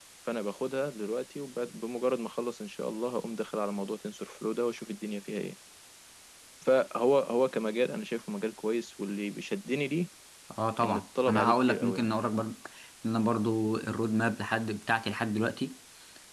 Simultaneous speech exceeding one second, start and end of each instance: 10.8-12.1

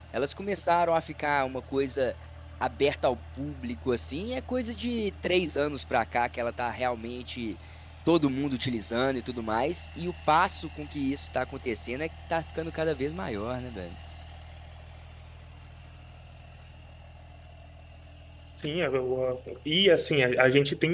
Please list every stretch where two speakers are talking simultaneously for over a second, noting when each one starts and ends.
none

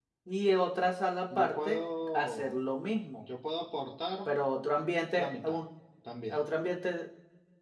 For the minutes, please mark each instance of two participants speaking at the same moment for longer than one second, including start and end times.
1.3-2.5

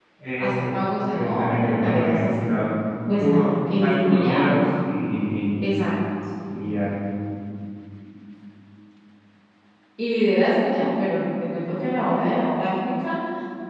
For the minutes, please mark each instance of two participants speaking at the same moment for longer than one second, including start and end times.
1.1-2.5, 3.2-4.4

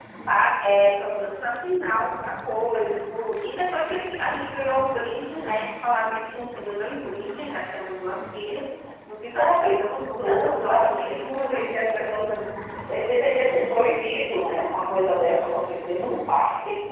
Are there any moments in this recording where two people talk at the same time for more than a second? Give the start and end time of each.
9.3-12.3

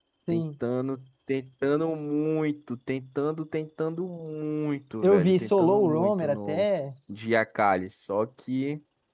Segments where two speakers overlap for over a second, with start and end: 5.0-6.7

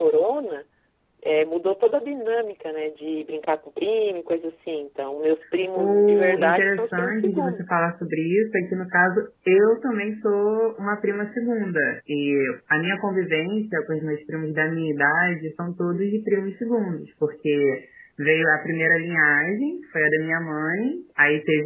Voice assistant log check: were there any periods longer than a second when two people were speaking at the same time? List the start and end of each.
5.8-7.7

